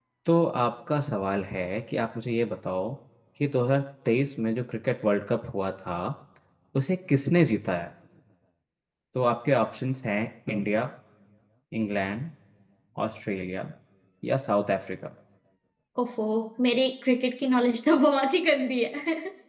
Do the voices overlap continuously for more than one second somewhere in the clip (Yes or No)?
No